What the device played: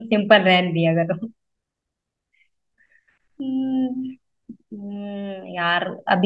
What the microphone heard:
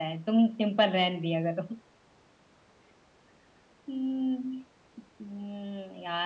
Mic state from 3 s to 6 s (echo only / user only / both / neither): echo only